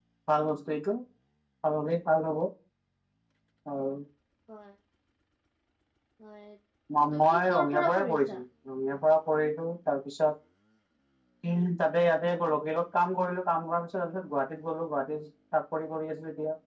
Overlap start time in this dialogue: 7.1 s

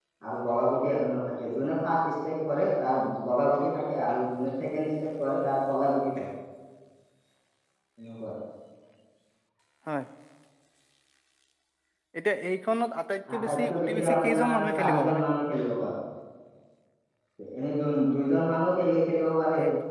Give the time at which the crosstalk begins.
13.3 s

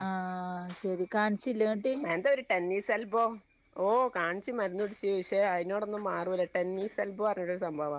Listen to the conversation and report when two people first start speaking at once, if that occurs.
none

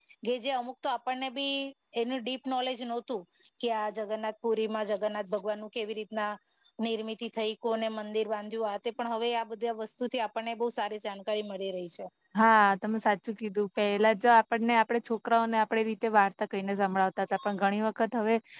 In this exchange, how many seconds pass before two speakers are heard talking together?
none

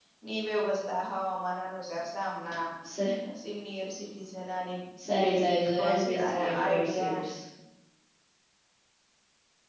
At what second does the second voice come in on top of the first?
5.2 s

